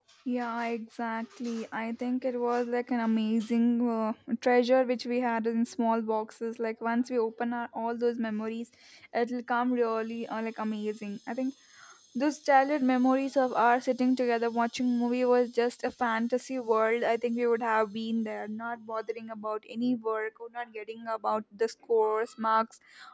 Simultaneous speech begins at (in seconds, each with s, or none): none